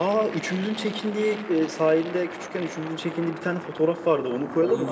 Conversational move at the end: listening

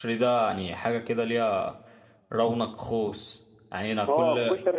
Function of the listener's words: taking over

